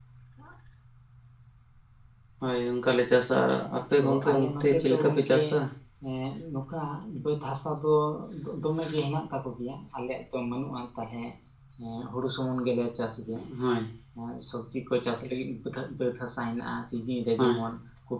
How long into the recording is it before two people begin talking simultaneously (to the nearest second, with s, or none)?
4 s